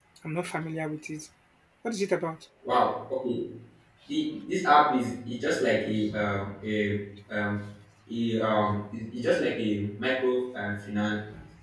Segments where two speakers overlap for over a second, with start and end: none

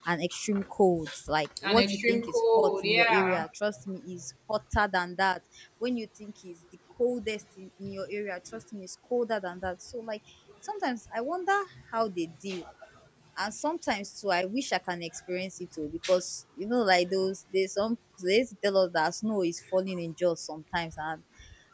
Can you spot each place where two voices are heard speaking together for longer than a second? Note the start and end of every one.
1.6-3.4

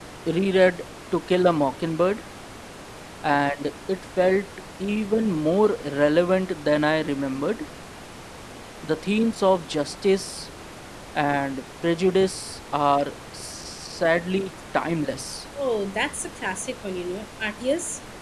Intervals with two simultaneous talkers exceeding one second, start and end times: none

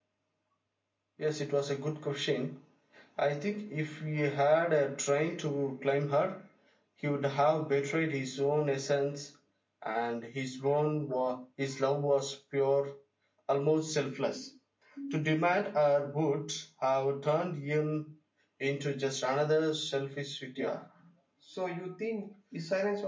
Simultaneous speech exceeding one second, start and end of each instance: none

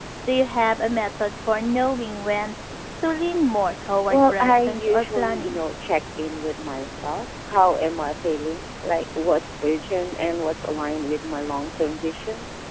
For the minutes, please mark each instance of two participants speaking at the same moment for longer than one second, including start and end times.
4.1-5.6

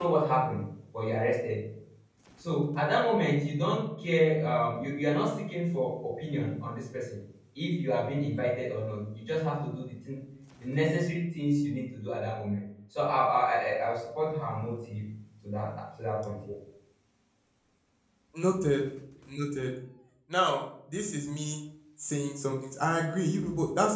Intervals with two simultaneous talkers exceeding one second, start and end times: none

